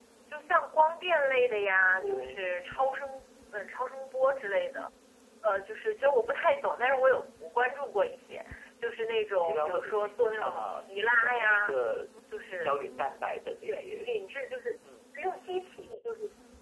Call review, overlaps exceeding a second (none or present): present